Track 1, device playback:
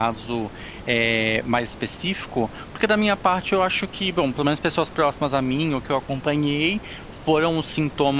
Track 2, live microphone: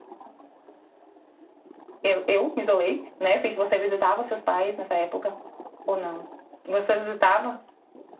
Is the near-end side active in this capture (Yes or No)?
Yes